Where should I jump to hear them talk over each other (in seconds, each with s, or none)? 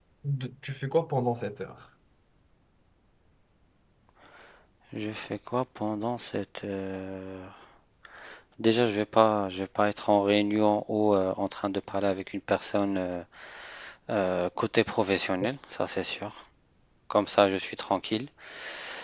none